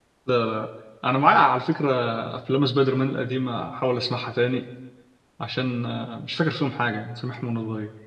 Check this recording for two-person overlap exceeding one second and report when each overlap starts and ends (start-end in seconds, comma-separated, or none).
none